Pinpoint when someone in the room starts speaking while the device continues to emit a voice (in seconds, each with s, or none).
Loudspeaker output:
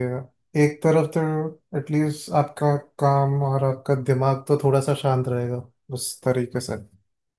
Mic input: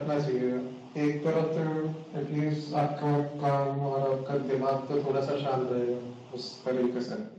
none